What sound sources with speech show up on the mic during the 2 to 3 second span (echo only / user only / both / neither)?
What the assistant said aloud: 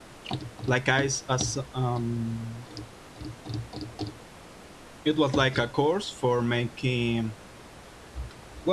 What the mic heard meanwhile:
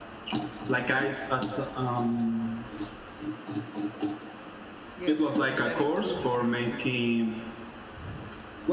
echo only